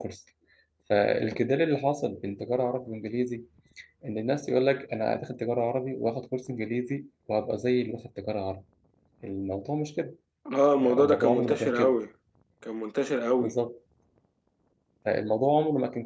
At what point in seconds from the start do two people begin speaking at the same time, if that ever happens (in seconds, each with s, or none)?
10.8 s